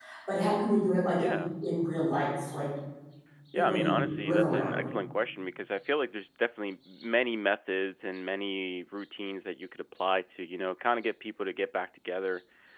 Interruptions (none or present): present